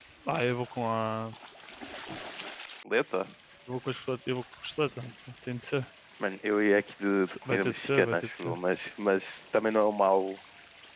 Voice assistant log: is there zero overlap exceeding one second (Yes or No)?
No